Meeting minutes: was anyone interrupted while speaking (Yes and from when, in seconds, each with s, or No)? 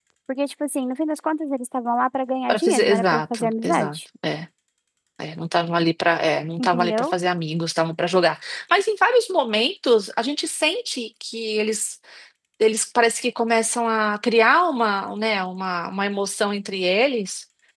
Yes, from 2.5 s